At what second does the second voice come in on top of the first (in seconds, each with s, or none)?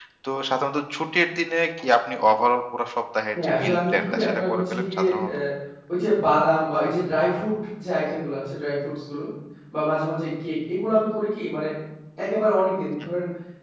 3.4 s